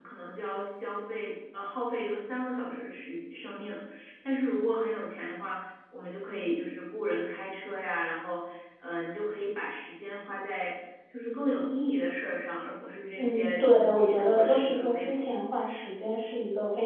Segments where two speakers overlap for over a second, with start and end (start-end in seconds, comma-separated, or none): 13.2-15.4